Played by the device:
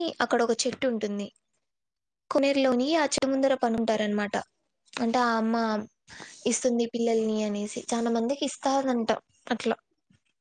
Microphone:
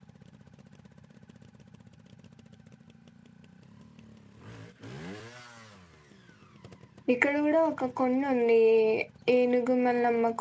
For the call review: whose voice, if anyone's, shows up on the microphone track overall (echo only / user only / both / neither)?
user only